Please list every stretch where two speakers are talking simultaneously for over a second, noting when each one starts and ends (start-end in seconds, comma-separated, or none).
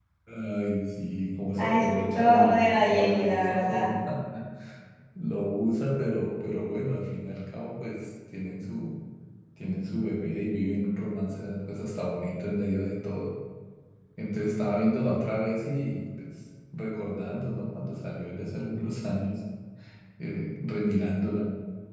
1.6-3.9